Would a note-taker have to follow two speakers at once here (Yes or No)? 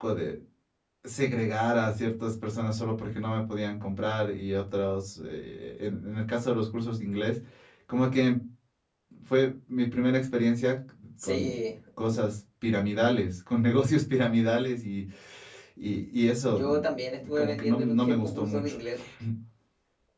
Yes